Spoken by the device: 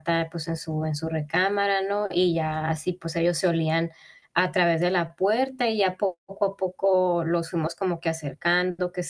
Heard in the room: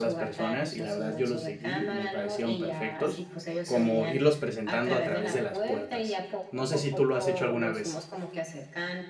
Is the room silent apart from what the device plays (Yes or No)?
No